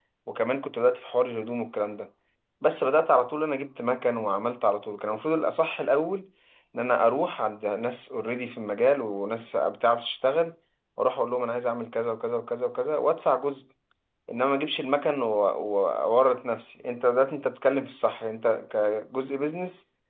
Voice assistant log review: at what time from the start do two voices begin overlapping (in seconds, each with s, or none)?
none